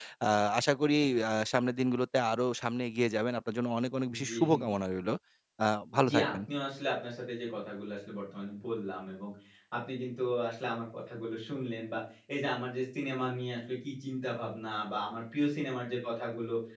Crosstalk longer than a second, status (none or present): none